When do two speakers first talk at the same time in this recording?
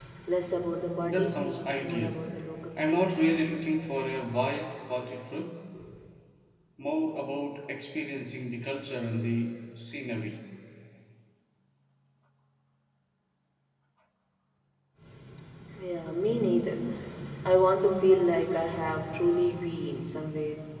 1.0 s

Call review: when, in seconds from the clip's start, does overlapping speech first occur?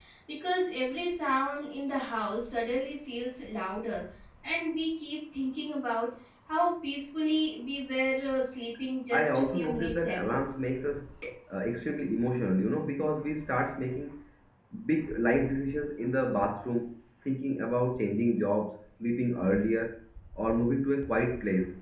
9.1 s

